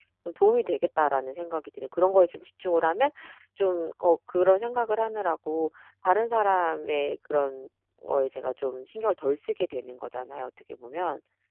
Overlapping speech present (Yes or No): No